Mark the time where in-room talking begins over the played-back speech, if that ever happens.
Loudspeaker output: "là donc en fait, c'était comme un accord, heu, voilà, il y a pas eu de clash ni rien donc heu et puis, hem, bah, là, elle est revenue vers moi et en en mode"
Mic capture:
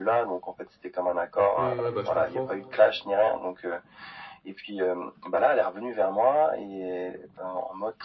2 s

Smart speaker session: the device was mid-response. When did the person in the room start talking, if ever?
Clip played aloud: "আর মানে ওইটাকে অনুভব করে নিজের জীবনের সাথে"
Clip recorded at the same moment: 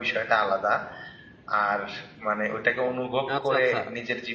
3 s

